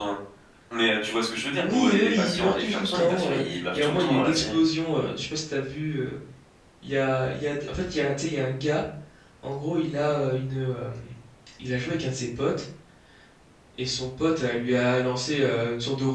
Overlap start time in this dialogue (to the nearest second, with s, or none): 2 s